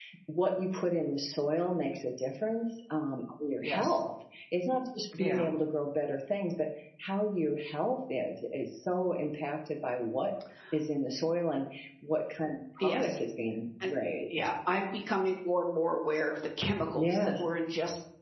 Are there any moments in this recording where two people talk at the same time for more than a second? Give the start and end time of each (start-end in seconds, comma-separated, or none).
none